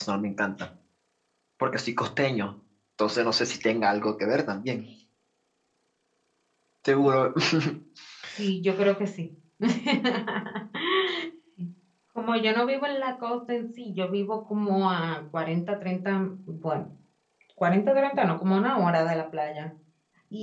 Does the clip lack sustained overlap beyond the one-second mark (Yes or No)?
Yes